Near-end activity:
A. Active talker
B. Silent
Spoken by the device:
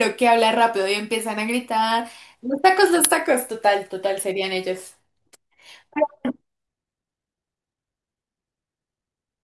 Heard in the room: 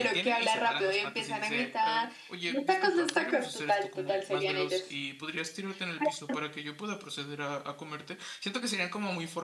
A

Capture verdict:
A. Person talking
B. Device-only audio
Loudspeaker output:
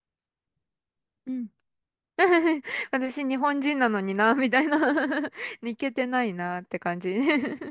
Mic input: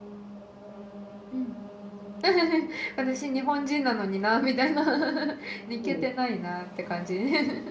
A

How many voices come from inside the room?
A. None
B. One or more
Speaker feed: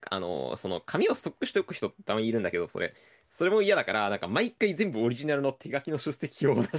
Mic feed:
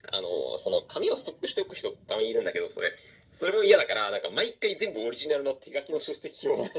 A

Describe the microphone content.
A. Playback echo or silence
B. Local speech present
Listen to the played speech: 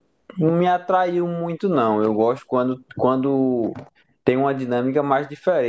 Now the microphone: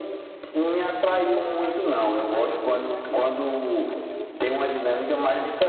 B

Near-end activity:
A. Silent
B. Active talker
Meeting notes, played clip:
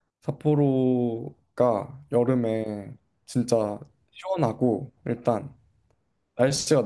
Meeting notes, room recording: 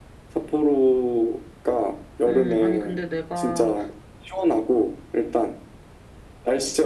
B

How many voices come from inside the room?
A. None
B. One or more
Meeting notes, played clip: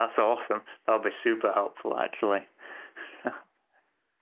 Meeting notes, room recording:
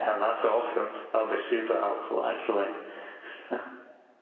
A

